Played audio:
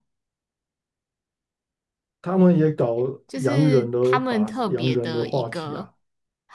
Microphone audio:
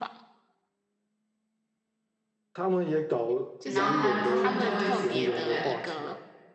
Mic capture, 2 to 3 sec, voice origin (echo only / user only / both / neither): echo only